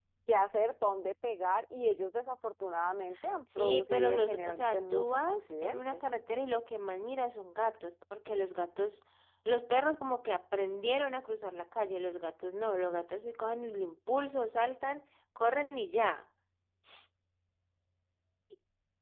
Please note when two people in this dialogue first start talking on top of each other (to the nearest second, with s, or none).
3 s